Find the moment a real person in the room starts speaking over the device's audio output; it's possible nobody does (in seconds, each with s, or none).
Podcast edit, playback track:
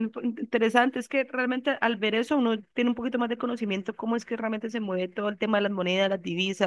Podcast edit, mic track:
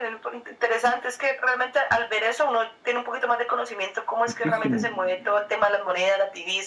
4.2 s